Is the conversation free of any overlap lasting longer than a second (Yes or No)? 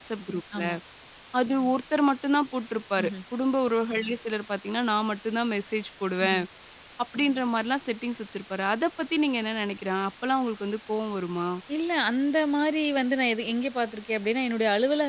Yes